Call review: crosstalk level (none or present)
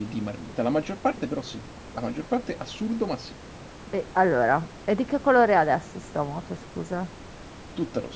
none